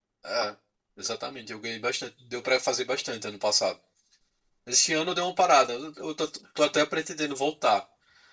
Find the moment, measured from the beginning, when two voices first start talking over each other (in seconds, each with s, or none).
none